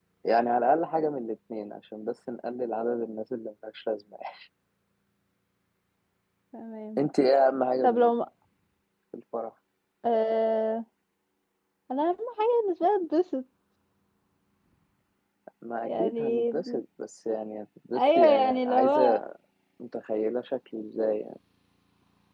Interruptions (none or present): present